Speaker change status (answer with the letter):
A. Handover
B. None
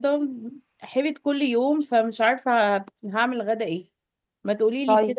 B